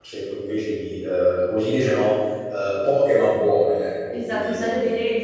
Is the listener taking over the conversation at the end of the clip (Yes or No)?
Yes